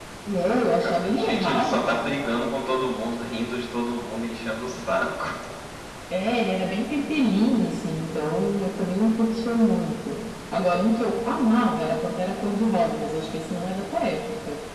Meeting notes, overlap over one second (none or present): present